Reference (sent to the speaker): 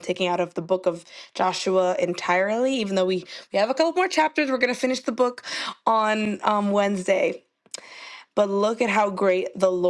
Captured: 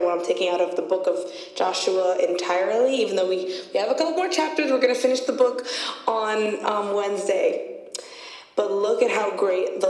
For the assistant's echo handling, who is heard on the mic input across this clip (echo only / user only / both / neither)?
echo only